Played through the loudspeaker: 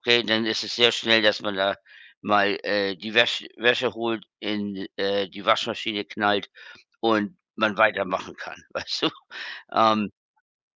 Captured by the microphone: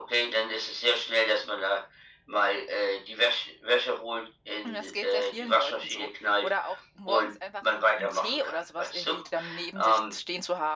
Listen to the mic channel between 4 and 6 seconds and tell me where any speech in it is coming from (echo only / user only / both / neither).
both